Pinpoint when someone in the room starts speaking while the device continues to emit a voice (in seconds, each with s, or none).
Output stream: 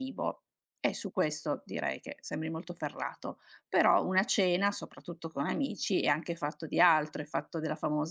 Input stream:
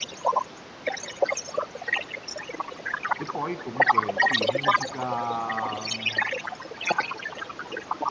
3.1 s